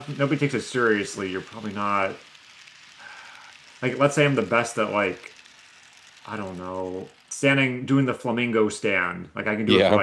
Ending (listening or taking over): listening